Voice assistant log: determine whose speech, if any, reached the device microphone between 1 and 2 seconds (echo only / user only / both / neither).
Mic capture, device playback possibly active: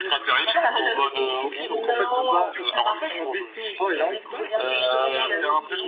both